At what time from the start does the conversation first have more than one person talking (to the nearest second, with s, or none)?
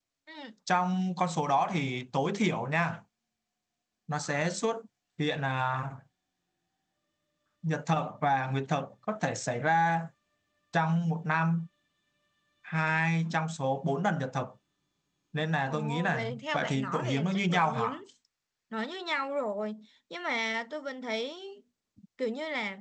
16 s